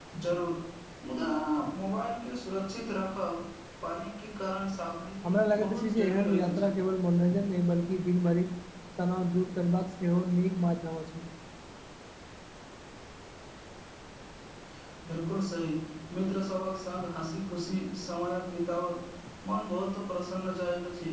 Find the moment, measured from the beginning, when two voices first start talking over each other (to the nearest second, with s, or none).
5 s